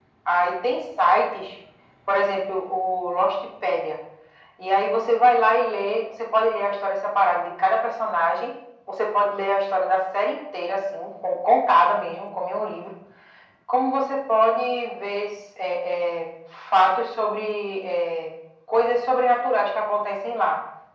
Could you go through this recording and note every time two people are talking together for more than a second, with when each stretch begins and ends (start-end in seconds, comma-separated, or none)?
none